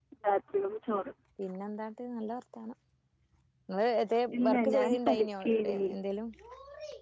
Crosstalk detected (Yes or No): Yes